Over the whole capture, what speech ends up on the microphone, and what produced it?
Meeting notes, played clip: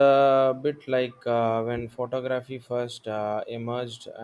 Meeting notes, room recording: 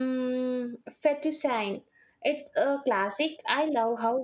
user only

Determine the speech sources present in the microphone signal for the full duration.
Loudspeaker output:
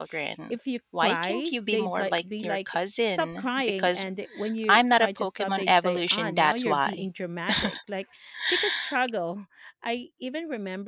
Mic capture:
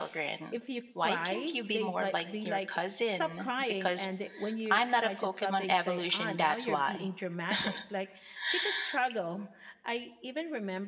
echo only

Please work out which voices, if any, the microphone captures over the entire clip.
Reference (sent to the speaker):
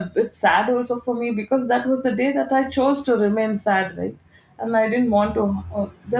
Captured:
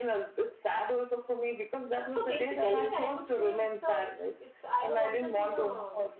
both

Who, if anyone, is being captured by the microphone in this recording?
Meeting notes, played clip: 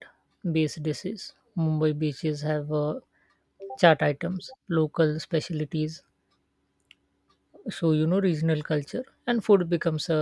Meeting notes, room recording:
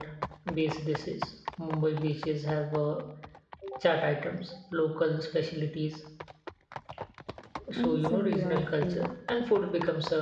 both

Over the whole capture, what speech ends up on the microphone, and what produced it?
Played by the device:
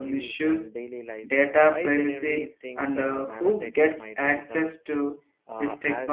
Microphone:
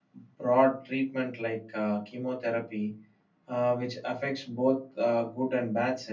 user only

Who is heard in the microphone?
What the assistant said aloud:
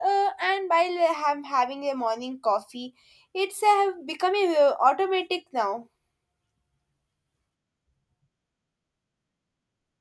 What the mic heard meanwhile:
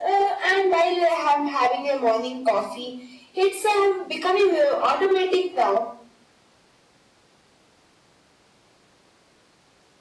echo only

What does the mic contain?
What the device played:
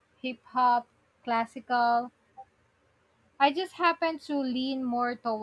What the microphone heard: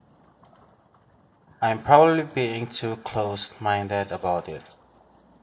user only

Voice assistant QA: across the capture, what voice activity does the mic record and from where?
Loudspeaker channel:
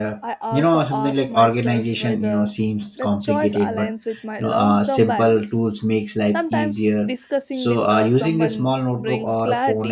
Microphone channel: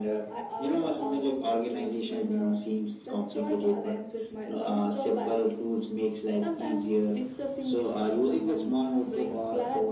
echo only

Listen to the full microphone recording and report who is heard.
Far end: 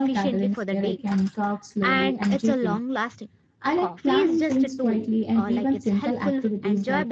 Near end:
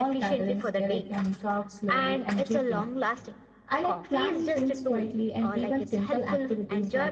echo only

